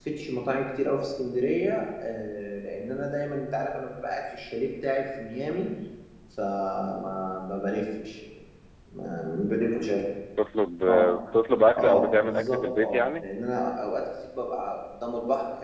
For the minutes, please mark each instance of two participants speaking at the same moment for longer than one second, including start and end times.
11.8-13.2

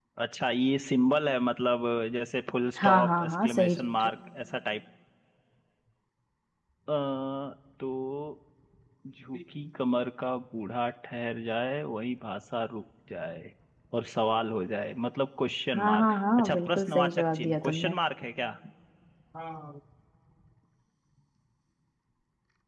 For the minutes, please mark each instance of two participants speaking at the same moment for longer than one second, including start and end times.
2.8-4.1, 15.8-18.0

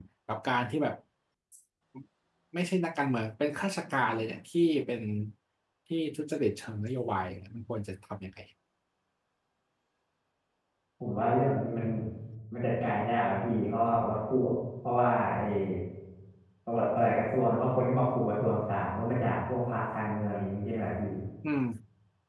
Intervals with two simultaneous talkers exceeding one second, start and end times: none

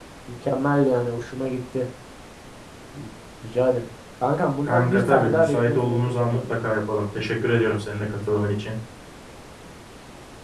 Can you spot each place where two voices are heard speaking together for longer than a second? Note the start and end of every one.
4.6-6.6

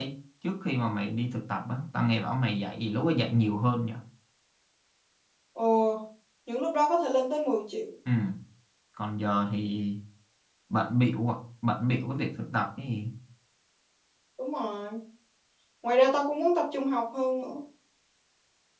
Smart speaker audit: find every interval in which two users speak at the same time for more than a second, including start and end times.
none

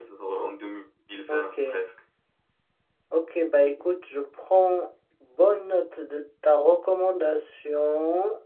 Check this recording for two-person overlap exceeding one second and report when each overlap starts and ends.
none

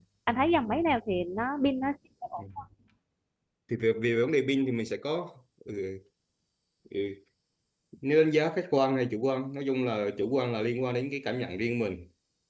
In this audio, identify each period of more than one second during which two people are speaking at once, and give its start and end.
none

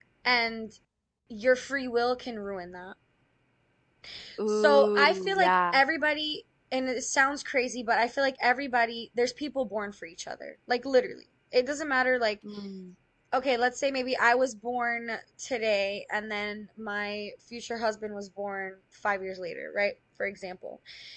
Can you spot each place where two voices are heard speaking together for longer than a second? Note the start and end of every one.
4.5-5.7

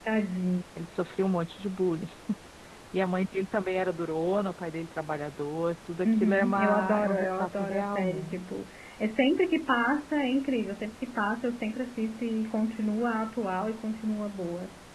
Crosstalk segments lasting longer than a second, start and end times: 6.0-8.4

